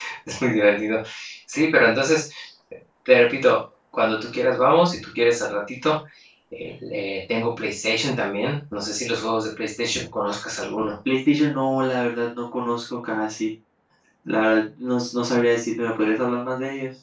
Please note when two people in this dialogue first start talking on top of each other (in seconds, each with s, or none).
none